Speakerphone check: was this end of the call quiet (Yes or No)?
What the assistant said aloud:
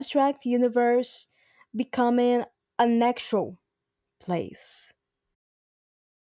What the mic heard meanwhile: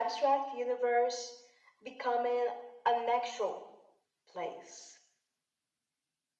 Yes